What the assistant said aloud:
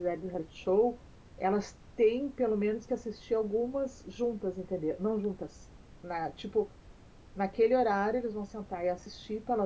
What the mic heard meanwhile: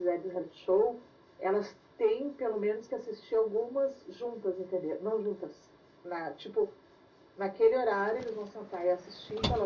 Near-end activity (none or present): none